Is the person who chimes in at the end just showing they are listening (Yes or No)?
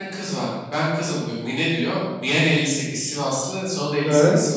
Yes